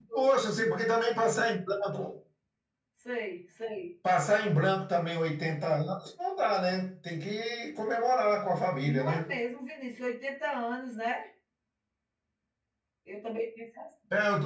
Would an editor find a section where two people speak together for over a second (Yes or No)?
No